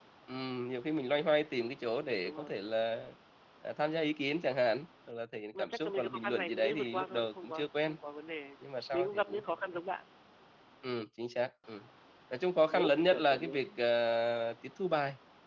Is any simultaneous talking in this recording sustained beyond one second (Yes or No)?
Yes